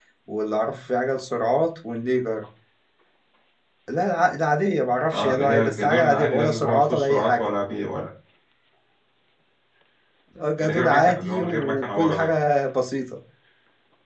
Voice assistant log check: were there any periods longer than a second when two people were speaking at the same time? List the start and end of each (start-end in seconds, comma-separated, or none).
5.1-7.5, 10.6-12.3